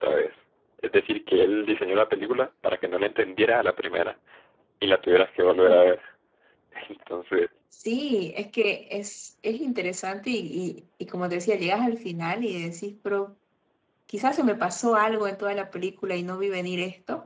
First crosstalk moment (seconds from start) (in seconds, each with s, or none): none